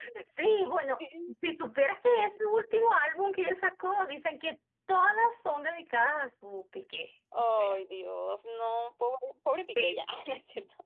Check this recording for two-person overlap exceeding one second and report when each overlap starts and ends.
none

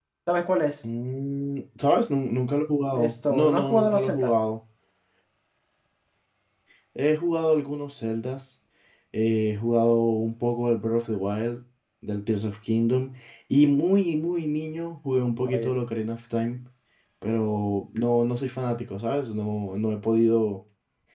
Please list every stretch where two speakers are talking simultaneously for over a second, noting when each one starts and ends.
2.9-4.4

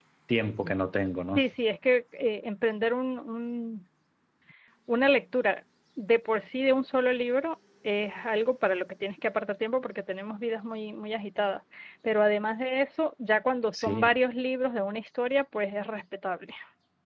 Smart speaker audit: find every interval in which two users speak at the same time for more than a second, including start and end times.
none

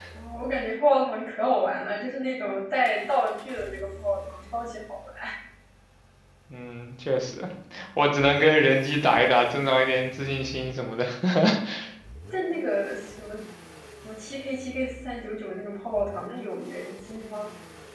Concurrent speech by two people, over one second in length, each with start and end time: none

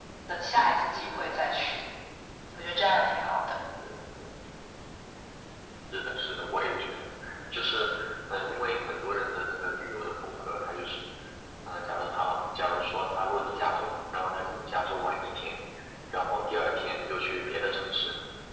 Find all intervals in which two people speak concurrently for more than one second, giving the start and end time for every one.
none

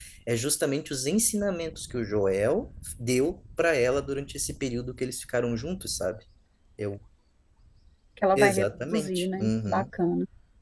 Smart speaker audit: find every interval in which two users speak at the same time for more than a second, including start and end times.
8.4-9.8

